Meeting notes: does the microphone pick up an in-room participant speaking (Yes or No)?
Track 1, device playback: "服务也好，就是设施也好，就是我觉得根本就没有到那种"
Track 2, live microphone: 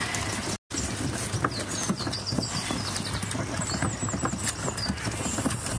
No